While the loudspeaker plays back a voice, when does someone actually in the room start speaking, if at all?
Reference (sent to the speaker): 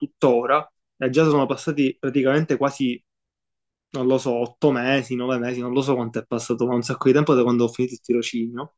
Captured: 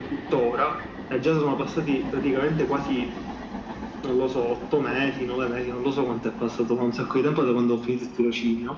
none

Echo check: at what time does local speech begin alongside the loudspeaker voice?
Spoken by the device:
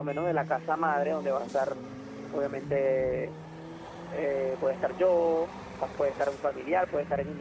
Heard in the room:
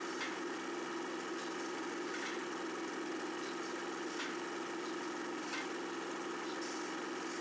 none

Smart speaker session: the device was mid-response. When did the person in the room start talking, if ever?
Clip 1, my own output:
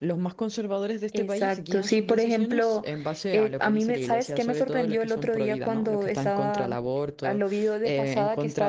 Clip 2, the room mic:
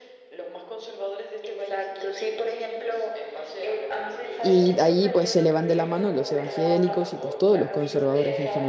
4.4 s

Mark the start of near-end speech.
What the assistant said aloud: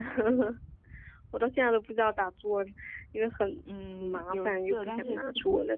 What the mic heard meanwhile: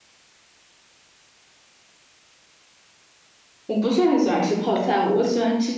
3.7 s

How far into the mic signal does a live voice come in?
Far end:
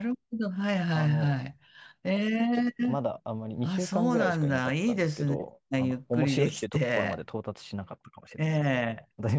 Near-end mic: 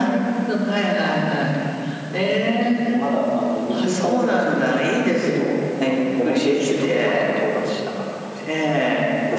none

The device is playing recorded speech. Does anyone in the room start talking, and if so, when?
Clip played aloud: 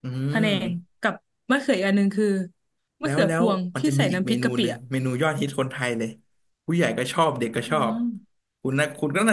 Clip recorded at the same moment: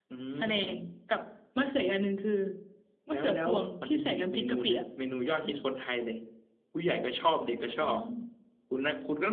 none

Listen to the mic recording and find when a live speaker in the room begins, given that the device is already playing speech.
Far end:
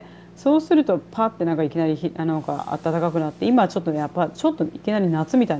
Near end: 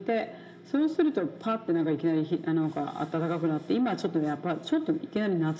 none

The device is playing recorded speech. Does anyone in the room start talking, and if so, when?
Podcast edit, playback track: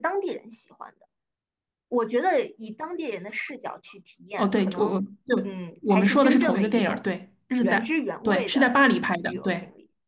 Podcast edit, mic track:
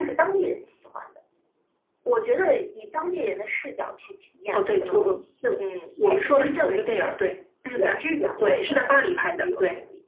none

